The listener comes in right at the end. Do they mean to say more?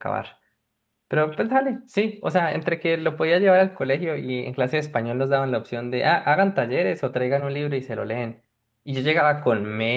No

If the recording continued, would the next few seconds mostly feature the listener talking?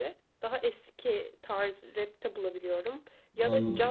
No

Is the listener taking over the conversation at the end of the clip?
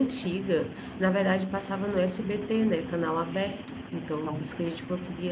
No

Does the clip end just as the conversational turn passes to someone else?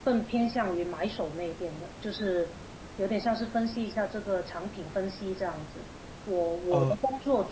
No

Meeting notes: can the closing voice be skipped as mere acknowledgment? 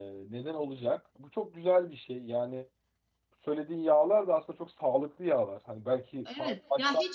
No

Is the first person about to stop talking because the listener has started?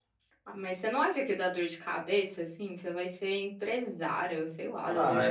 Yes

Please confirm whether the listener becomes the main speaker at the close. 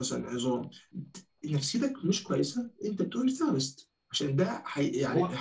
No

